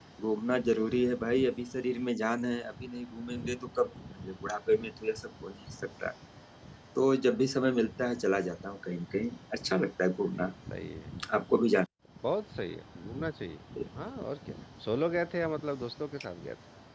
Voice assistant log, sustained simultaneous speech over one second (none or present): none